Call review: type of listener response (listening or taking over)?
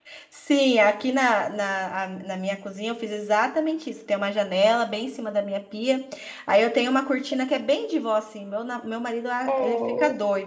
listening